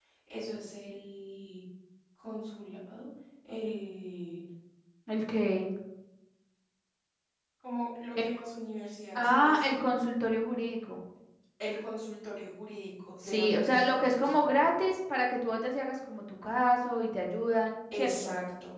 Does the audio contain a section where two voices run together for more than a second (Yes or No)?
Yes